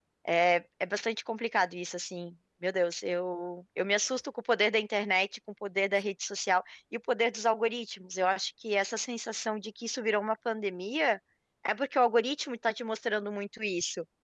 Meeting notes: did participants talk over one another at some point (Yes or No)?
No